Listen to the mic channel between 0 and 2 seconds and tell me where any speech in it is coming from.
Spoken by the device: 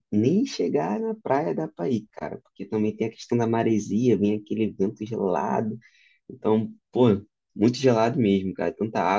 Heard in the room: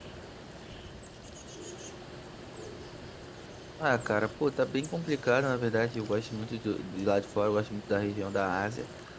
neither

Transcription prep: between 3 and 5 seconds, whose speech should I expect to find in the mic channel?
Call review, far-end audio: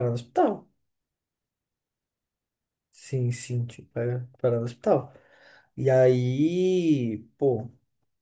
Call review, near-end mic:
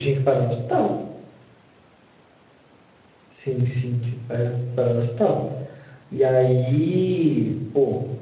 echo only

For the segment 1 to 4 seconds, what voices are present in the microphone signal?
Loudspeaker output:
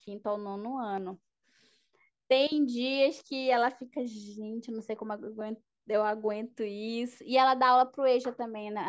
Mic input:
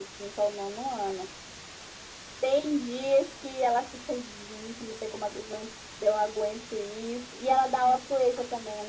echo only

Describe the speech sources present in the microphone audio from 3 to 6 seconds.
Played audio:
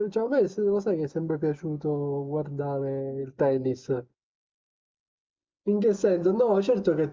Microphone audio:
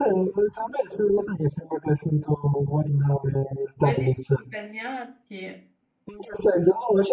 both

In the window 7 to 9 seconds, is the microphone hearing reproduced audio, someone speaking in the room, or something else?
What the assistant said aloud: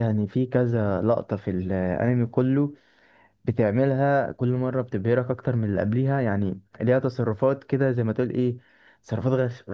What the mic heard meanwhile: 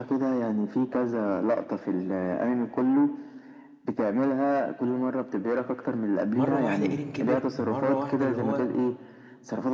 both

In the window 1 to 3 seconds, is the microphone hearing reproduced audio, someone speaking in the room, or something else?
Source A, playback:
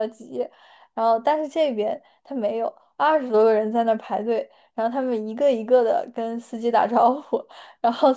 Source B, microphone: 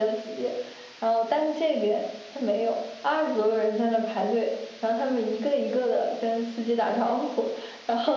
echo only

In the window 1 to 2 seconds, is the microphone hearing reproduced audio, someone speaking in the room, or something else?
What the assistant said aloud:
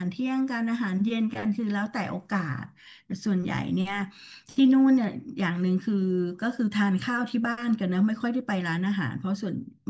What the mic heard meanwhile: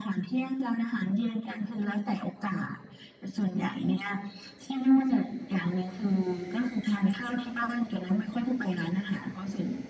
echo only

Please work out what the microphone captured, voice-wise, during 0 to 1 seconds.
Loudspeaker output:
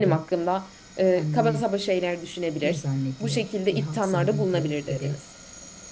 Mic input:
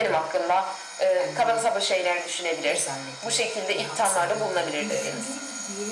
echo only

